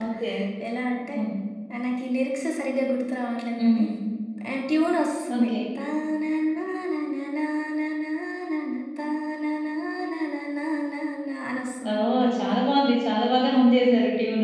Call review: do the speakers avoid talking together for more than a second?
Yes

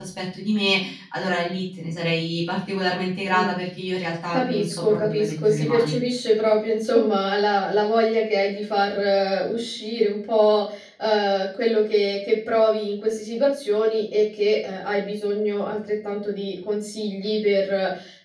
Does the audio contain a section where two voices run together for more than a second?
Yes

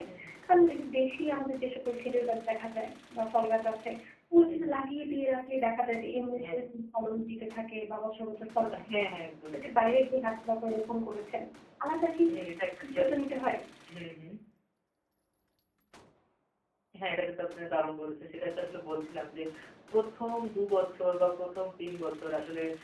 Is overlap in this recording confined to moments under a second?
Yes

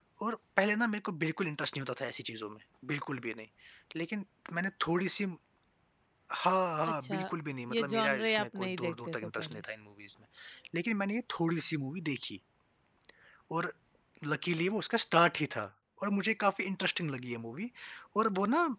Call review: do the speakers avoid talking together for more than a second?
No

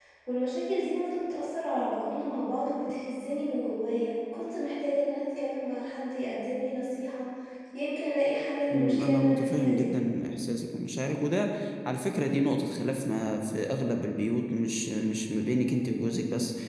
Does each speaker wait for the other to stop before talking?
No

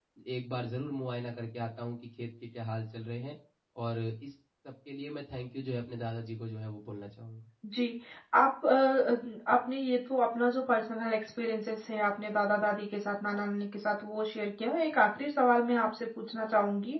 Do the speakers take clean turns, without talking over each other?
Yes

